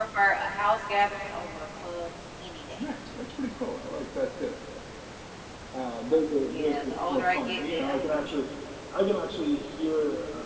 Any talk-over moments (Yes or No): Yes